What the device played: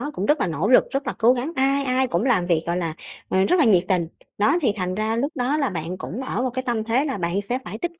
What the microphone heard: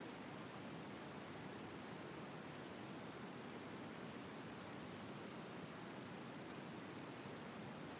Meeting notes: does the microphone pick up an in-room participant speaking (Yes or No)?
No